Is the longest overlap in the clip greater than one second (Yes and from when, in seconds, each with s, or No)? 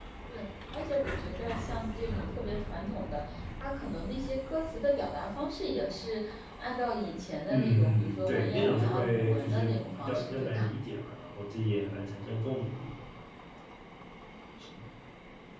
Yes, from 7.5 s